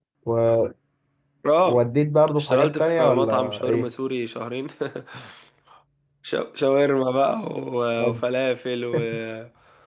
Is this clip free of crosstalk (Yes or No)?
No